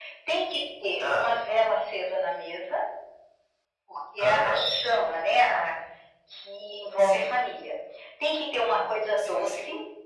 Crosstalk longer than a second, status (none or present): none